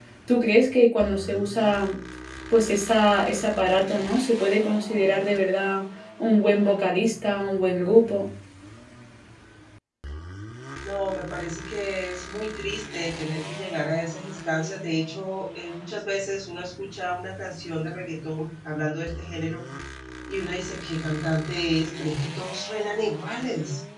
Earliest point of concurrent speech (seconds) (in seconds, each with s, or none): none